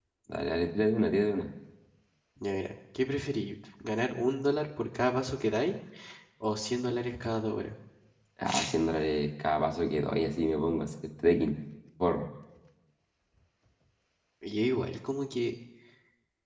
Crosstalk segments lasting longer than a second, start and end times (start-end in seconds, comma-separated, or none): none